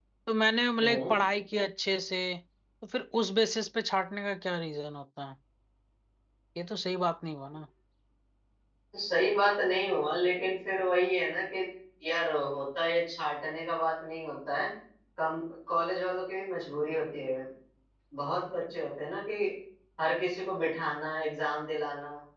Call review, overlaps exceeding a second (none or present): none